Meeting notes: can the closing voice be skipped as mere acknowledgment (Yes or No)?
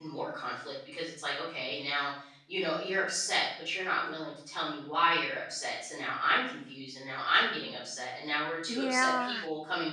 Yes